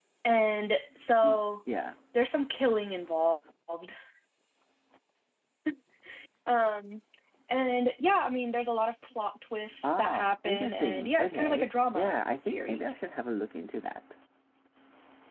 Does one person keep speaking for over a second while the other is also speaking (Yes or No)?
Yes